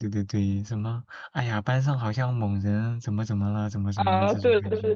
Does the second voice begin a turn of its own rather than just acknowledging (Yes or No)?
Yes